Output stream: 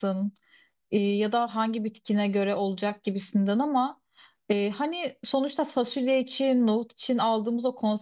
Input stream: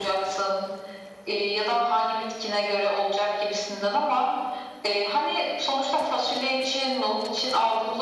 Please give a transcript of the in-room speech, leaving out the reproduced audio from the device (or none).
none